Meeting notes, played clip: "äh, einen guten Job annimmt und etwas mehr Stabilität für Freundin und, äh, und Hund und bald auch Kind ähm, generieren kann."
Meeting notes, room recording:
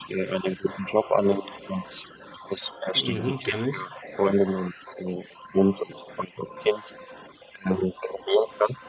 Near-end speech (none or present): present